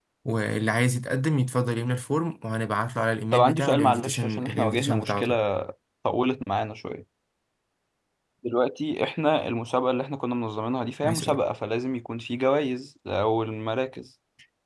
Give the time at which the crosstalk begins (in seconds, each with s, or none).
3.3 s